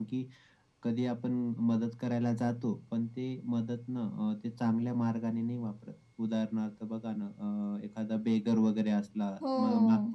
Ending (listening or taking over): listening